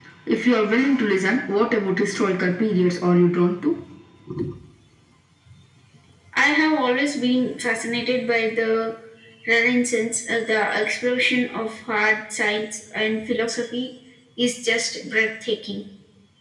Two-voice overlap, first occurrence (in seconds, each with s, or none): none